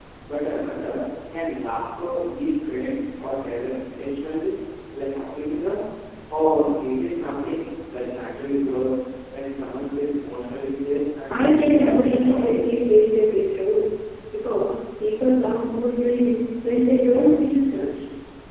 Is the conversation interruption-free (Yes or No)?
No